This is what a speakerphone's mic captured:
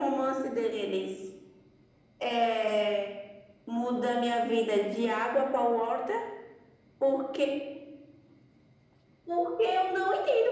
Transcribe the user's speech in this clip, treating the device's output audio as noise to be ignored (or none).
none